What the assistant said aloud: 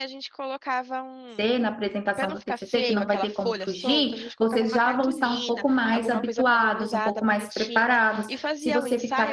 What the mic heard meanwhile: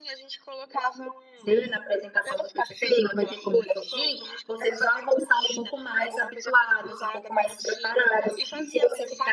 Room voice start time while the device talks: none

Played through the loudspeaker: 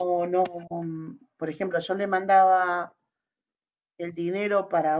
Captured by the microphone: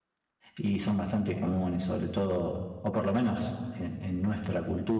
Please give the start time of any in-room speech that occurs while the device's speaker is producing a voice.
0.6 s

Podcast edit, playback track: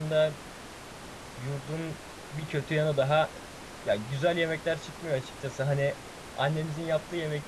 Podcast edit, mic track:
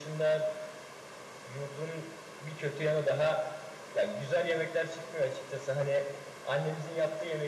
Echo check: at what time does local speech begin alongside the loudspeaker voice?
none

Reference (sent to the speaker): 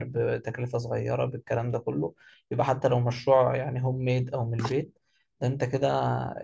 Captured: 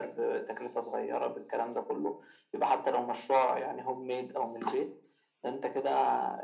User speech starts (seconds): none

